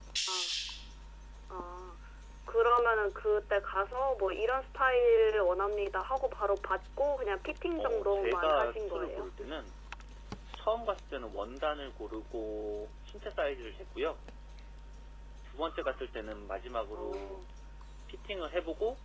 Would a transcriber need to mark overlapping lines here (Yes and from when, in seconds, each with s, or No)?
Yes, from 7.8 s